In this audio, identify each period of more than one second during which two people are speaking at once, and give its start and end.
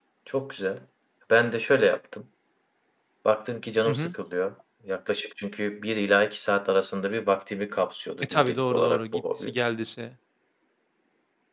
8.2-9.5

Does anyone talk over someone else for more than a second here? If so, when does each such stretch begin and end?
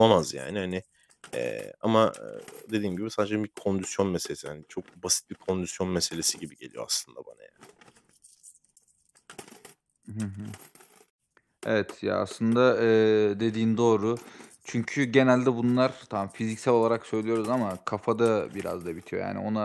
none

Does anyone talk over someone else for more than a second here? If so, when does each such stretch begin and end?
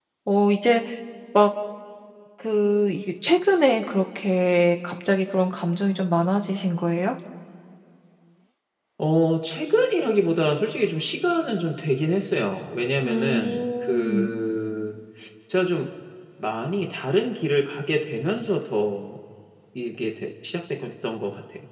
13.0-14.3

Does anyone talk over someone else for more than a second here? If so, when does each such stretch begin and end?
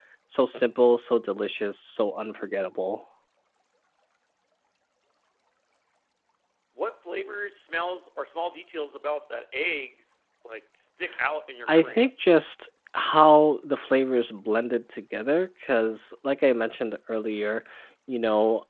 none

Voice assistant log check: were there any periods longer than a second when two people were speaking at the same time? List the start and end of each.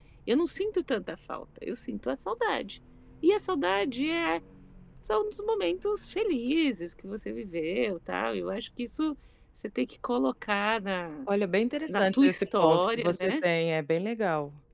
11.9-13.4

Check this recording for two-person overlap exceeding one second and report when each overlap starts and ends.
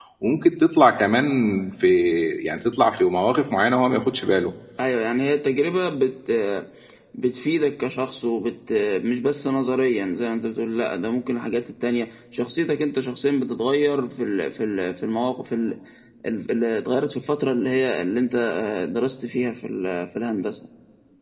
none

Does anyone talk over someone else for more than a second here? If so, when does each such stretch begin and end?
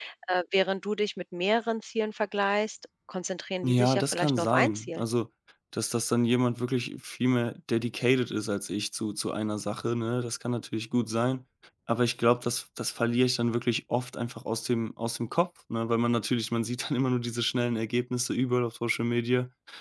3.6-5.0

